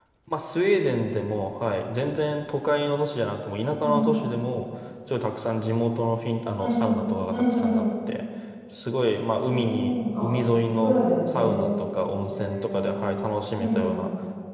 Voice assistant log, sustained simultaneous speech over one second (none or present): present